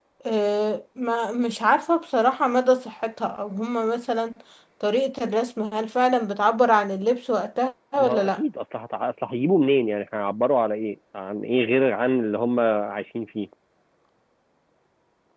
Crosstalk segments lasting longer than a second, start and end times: none

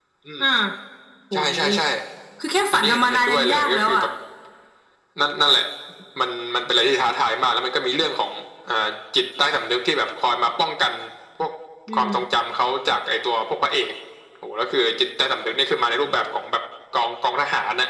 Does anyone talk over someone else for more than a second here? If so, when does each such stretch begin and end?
2.7-4.0

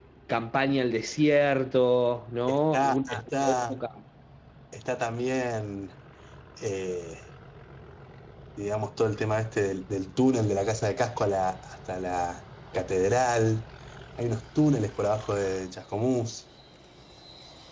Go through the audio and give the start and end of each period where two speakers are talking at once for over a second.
2.5-3.8

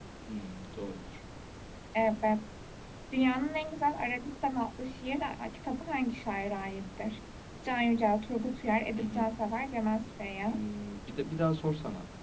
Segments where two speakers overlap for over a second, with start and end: none

